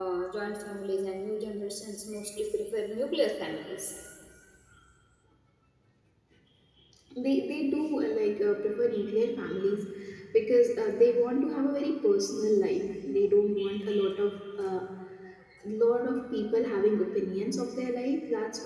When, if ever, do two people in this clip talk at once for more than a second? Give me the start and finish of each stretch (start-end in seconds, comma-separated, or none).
none